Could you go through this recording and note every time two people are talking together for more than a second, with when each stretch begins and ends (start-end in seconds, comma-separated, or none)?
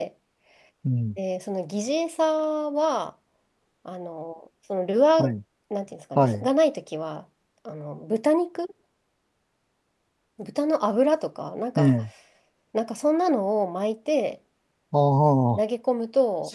none